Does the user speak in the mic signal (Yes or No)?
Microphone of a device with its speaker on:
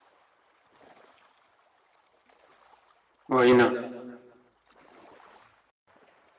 Yes